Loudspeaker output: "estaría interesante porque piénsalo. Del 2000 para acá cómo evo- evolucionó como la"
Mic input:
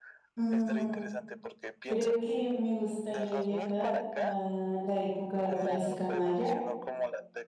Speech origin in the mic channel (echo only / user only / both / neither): both